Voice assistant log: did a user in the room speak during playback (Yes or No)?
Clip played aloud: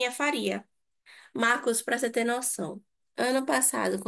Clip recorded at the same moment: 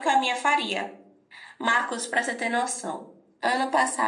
No